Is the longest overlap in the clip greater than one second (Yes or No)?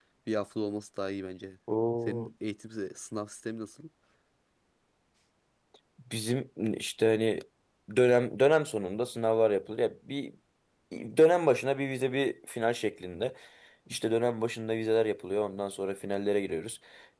No